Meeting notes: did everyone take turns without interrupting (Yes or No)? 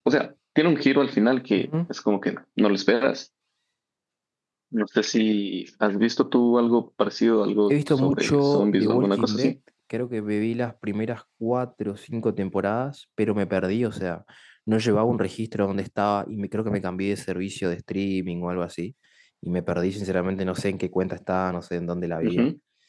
No